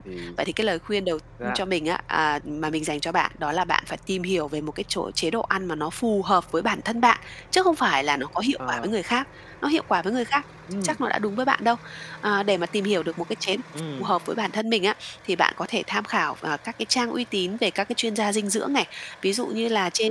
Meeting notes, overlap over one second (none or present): none